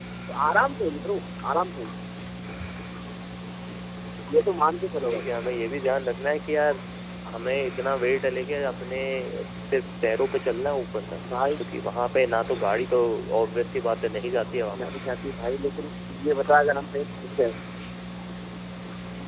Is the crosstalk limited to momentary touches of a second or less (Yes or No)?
Yes